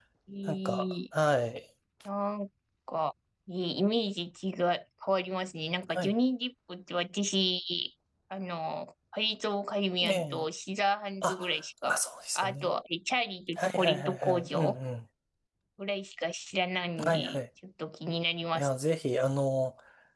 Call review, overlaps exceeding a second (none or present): present